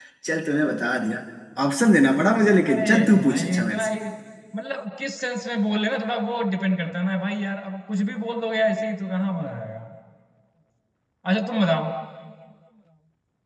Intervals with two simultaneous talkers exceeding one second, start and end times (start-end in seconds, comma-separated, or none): 2.7-3.9